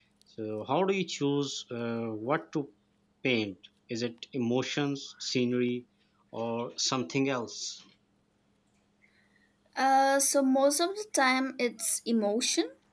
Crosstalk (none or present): none